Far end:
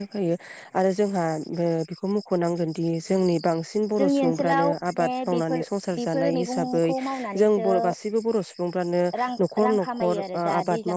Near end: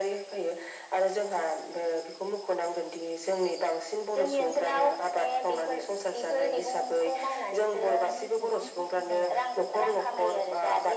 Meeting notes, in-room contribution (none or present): present